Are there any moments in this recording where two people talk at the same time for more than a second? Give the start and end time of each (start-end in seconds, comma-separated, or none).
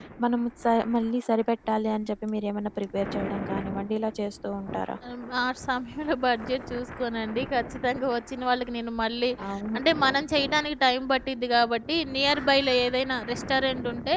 none